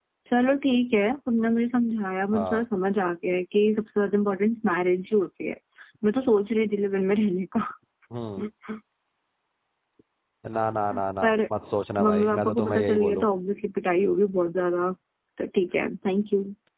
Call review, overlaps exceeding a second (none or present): present